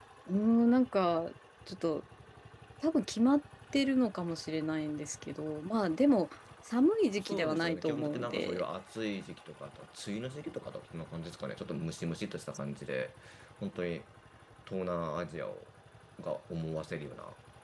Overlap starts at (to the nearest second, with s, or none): 7 s